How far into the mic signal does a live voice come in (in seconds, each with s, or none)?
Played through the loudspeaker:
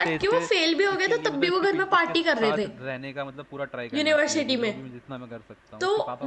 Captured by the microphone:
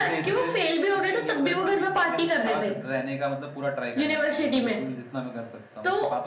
none